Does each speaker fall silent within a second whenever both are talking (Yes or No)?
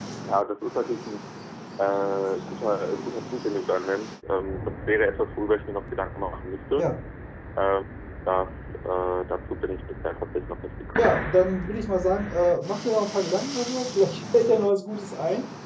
Yes